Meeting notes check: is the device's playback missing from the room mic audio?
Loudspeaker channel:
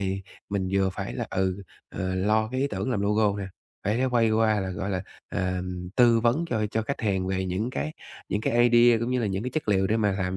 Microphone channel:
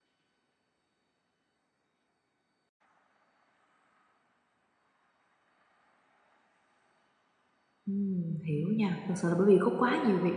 Yes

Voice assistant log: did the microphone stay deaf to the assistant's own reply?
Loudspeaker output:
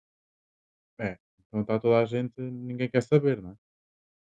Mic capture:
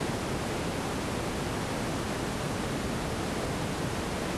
Yes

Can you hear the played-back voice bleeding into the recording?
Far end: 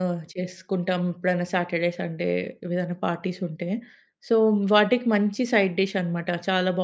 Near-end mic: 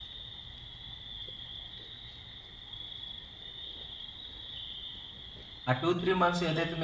No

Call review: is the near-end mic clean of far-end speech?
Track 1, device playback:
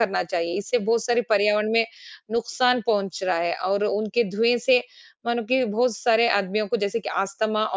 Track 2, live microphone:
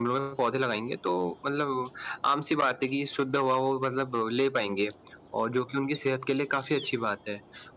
Yes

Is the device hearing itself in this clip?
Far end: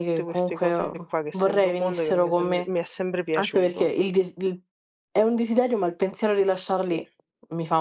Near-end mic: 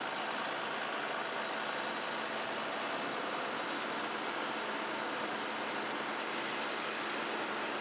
No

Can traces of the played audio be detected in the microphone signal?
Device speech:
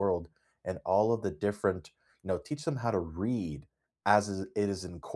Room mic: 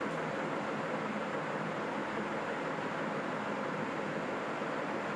No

